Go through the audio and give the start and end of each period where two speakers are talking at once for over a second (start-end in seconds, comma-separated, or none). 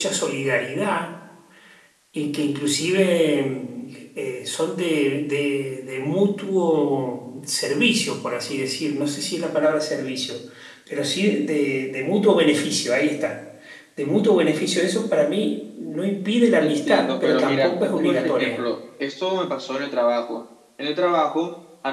16.6-18.7